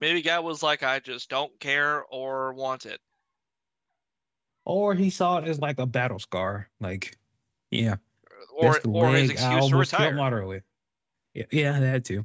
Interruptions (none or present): present